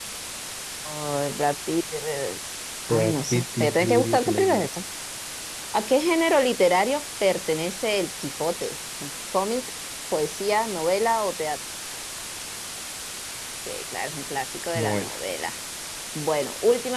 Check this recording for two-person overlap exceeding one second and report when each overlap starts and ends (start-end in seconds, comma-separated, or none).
2.9-4.7